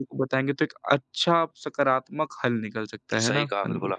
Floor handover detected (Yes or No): Yes